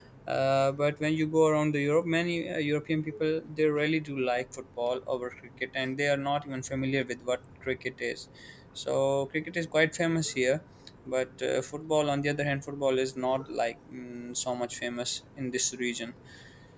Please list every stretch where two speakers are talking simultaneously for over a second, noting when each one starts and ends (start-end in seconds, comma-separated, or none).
none